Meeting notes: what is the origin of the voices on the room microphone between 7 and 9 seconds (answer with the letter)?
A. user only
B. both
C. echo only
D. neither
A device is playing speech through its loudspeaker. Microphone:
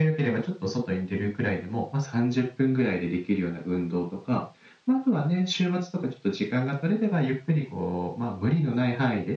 C